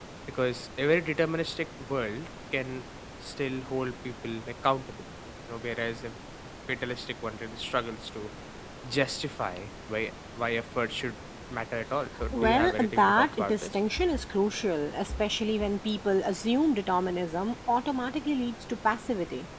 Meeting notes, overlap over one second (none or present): present